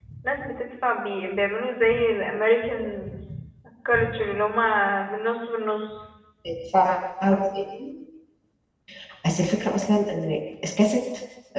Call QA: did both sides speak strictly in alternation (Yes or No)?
Yes